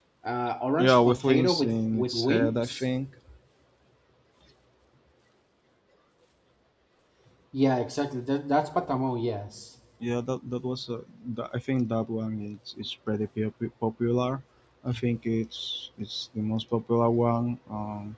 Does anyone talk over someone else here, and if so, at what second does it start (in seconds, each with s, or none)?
0.8 s